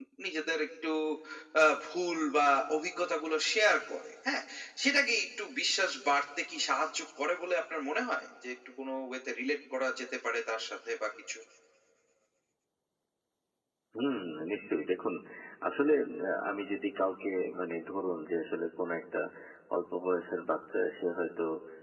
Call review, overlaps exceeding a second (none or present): none